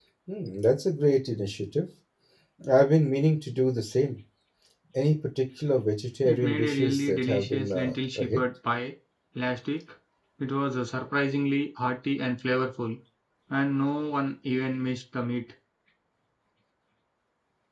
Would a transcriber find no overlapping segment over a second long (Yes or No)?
No